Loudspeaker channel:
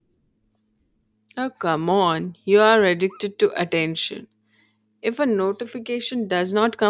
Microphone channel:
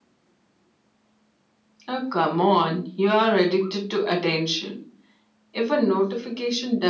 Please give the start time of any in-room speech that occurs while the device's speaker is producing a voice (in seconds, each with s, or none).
none